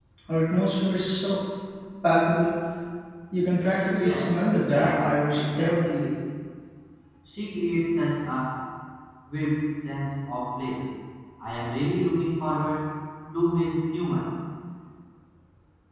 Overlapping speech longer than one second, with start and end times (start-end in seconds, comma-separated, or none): 4.0-5.8